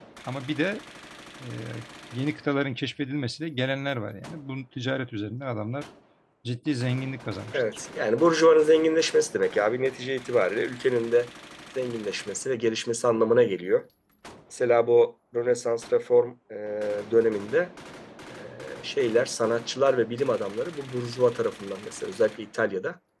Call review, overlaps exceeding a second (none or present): none